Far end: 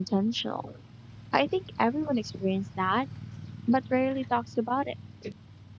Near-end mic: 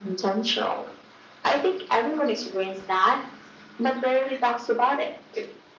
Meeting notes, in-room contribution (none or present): none